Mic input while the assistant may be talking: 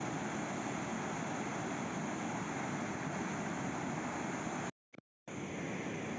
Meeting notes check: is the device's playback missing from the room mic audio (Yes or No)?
Yes